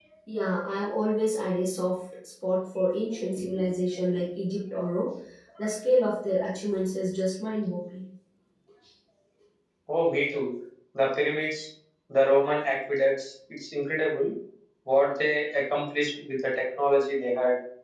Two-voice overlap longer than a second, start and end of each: none

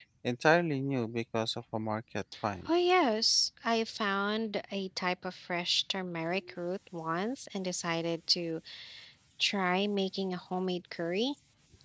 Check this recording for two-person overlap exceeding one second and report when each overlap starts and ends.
none

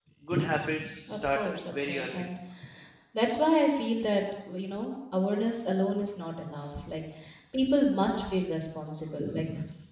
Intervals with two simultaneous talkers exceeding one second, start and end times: 1.1-2.3

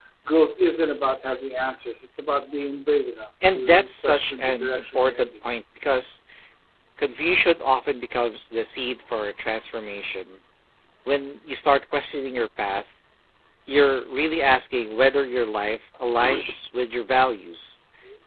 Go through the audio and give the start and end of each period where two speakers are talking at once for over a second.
3.5-5.3

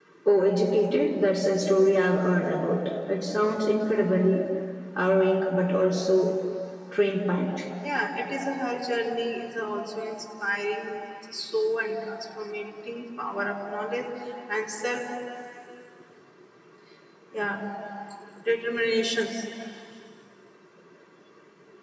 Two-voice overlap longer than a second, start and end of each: none

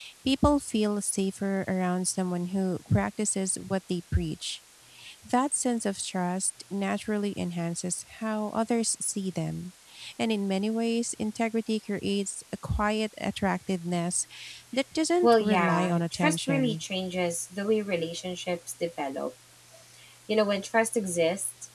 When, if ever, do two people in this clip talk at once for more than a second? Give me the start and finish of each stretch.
15.2-16.8

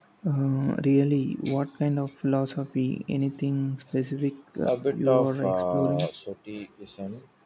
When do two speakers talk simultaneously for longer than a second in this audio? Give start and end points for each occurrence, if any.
4.7-6.1

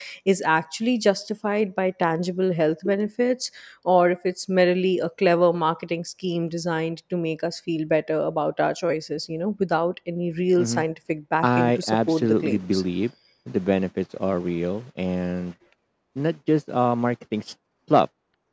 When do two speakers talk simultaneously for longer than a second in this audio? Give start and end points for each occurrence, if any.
11.4-12.8

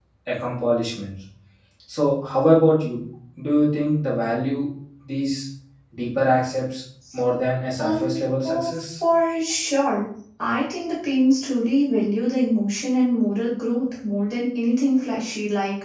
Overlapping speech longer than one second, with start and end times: 7.8-9.0

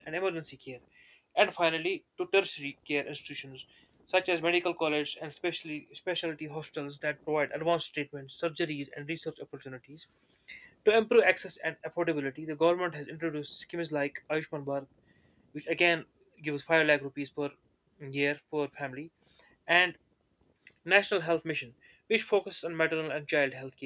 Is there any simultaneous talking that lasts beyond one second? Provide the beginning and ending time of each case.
none

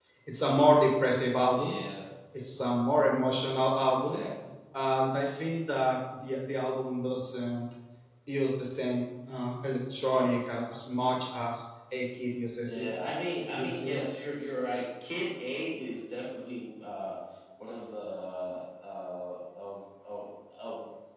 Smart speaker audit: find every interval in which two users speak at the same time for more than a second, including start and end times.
none

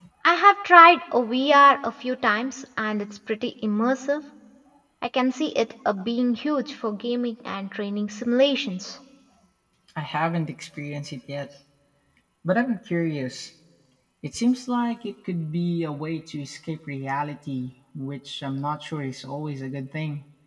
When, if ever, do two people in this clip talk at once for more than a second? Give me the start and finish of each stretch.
none

